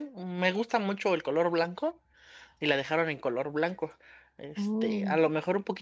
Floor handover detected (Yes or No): No